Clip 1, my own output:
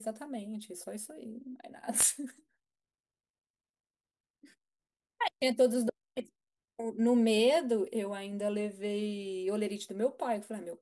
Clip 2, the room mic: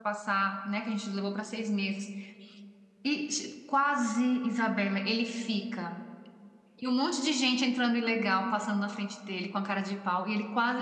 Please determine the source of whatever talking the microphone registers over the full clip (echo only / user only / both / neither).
user only